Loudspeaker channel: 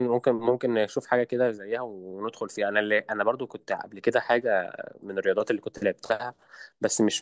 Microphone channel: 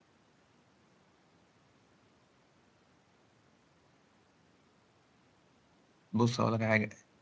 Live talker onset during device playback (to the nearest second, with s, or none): 6 s